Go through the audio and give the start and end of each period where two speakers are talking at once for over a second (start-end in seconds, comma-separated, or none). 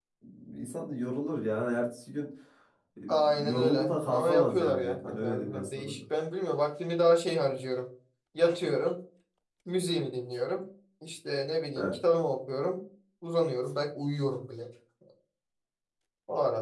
3.1-5.9